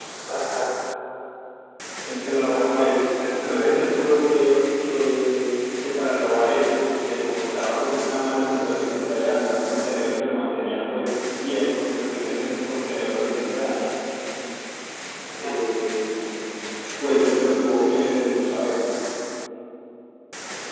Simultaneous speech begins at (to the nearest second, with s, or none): 2 s